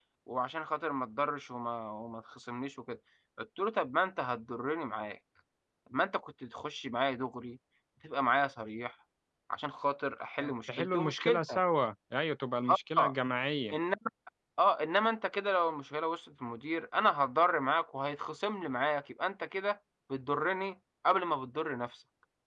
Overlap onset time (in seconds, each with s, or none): 10.4 s